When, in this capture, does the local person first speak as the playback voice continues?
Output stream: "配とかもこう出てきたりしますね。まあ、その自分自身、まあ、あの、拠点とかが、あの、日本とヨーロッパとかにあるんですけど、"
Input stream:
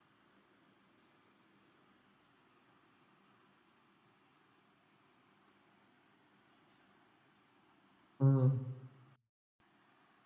8.2 s

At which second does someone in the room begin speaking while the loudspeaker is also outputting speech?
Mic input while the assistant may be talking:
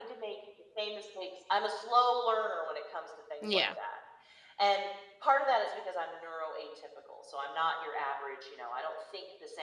3.4 s

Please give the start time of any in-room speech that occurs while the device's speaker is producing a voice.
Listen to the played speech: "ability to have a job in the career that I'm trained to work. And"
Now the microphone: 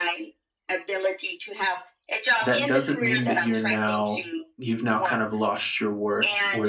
2.4 s

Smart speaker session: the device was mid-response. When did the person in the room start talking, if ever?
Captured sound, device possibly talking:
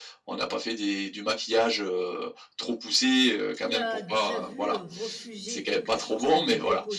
3.5 s

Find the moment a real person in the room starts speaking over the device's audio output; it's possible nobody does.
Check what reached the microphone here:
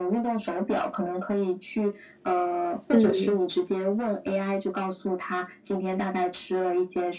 2.9 s

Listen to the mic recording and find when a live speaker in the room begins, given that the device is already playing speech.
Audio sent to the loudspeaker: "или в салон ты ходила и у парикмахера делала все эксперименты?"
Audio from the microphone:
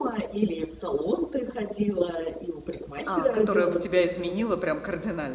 3.0 s

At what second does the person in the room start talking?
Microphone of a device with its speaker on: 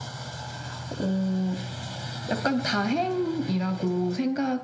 none

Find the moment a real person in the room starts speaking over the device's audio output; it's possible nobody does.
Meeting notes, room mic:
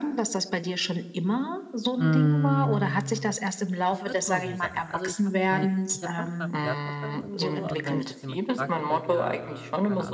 1.9 s

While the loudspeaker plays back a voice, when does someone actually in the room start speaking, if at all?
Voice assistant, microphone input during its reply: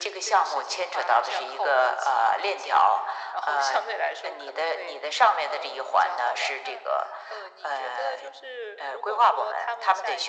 none

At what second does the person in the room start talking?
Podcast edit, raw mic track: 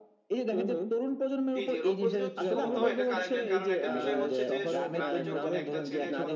1.6 s

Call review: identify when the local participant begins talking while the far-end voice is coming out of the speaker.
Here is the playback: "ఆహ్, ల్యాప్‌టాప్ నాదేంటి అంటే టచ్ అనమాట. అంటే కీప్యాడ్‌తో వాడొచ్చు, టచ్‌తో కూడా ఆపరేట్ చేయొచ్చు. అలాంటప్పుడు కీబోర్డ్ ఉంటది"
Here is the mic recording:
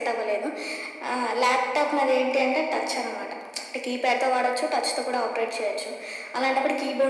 none

